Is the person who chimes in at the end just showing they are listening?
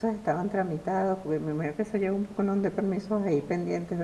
No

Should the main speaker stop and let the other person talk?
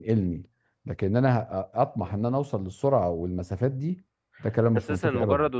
Yes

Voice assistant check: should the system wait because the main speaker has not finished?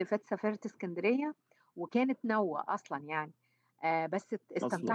Yes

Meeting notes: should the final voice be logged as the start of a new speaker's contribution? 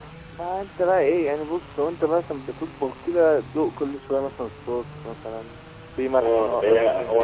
Yes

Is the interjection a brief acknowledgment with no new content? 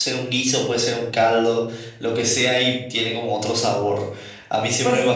No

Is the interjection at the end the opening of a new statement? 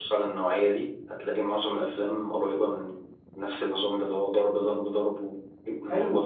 Yes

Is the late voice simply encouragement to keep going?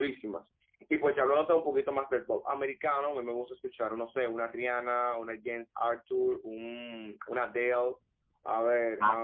Yes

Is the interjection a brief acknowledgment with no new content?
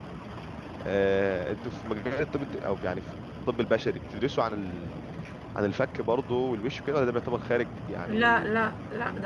No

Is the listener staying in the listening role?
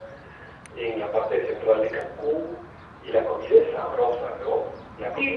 No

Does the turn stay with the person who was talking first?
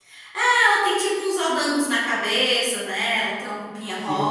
No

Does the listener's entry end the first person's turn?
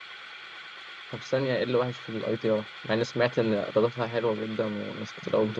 Yes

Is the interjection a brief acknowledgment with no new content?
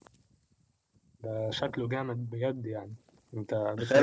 No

